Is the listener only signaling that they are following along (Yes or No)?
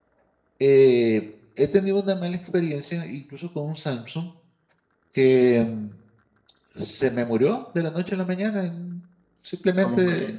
Yes